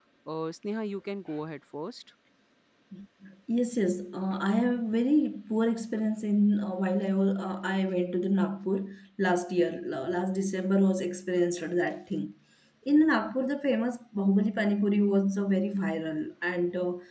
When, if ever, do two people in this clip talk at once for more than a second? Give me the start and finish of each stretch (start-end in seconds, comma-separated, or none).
none